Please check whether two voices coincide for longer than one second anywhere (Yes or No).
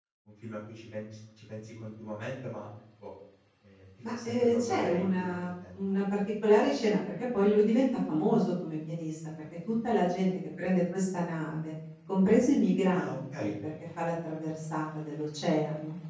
Yes